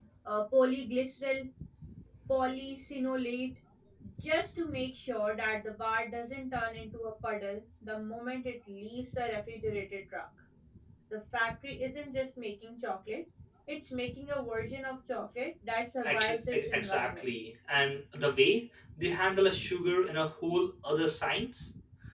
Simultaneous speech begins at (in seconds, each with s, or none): 16.0 s